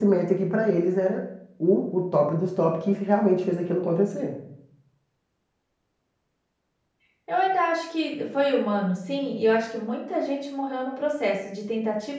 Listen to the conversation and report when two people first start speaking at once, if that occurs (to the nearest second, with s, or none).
none